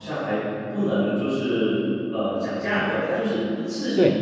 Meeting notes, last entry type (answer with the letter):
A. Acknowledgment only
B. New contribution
B